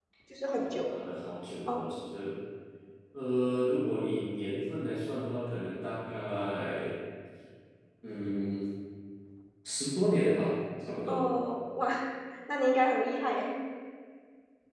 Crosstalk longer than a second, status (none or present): none